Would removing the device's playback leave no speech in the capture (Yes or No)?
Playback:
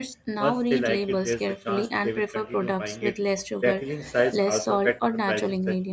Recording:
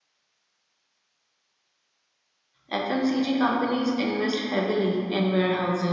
No